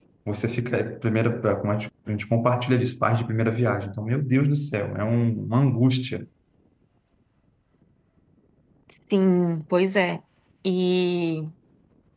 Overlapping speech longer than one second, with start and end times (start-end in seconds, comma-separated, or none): none